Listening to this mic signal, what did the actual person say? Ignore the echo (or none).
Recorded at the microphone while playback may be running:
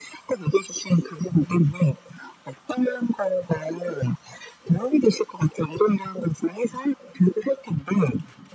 none